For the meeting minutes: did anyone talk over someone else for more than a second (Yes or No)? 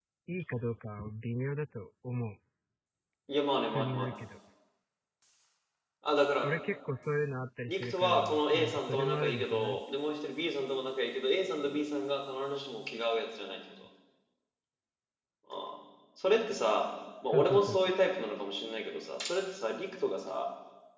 Yes